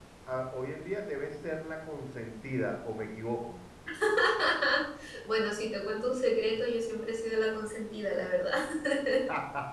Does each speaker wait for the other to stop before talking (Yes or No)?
Yes